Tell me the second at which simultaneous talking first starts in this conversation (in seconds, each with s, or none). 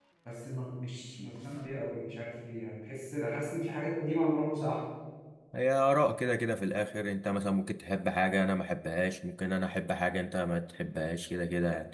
none